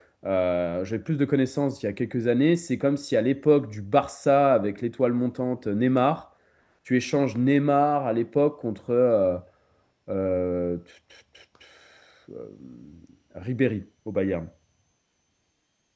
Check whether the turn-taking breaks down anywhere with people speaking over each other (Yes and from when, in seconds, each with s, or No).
No